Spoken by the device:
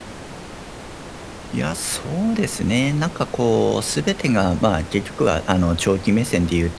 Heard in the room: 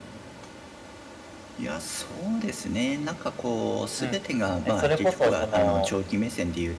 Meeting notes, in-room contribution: present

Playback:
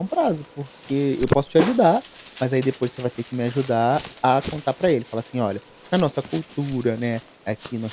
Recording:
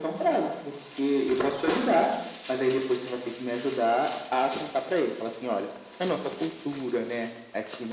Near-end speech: none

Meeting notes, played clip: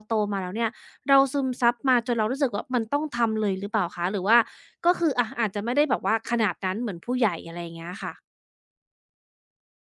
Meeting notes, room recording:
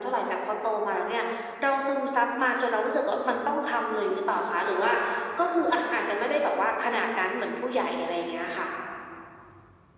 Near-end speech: none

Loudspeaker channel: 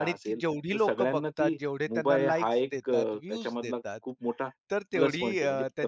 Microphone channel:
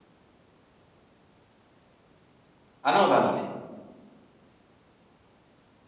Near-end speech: present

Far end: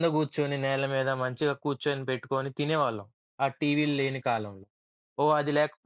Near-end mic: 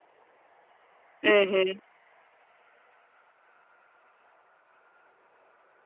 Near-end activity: present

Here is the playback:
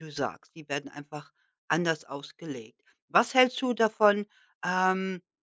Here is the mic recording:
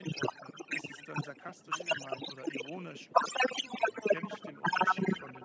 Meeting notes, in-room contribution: present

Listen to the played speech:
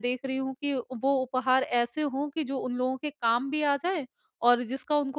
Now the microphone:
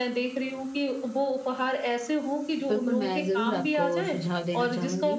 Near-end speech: present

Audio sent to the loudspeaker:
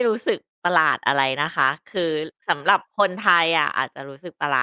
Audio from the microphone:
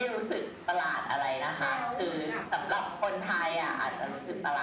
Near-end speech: present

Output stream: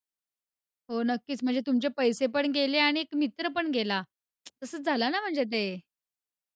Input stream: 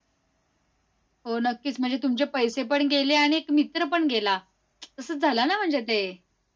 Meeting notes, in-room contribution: none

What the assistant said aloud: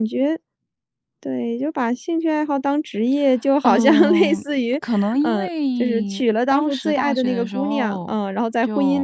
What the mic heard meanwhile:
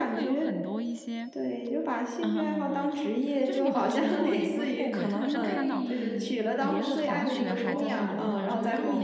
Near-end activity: present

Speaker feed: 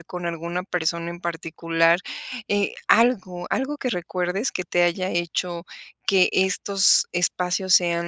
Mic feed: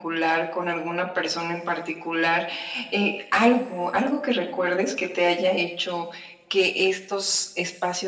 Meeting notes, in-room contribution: none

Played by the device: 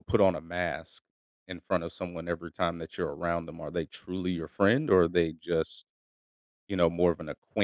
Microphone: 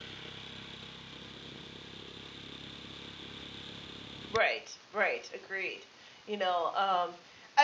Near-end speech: present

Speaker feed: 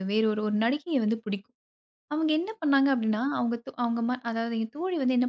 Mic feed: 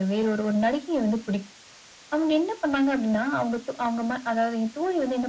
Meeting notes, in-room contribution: none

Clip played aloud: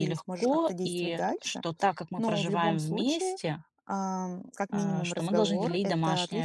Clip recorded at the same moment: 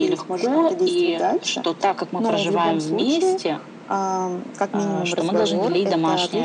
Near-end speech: none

